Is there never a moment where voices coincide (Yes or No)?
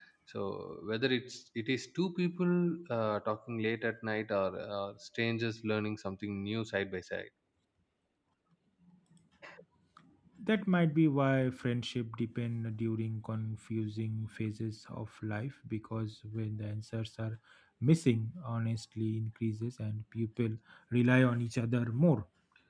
Yes